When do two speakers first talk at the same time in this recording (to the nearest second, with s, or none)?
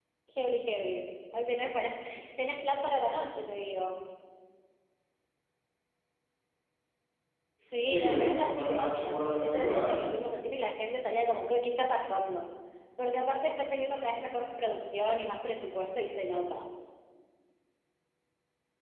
8 s